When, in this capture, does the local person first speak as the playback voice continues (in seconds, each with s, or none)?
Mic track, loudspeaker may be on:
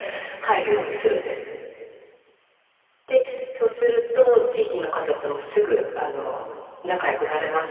none